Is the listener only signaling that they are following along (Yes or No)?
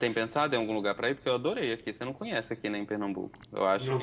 No